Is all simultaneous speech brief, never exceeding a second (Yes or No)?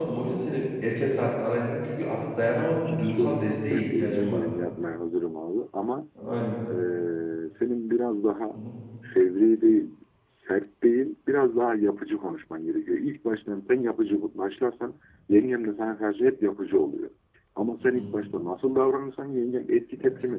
No